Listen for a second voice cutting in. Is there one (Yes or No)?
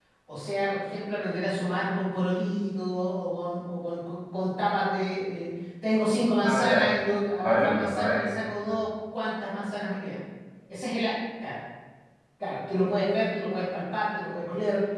Yes